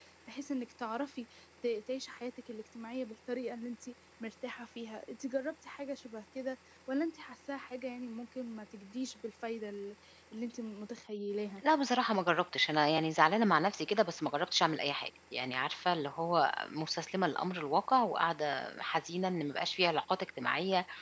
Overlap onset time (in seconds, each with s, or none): none